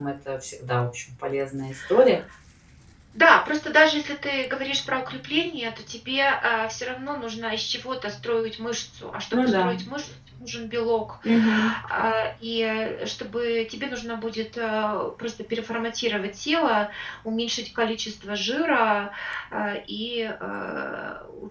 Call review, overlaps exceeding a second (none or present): none